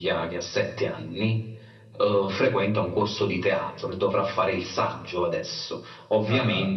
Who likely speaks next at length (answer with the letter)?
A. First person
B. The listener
A